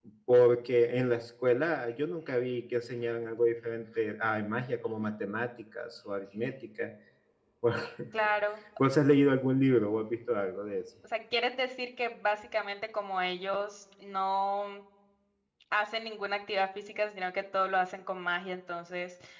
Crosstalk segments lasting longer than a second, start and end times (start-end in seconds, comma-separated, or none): none